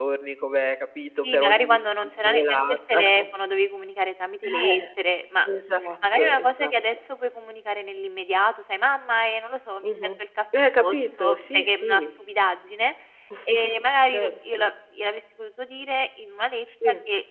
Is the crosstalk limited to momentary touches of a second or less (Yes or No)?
No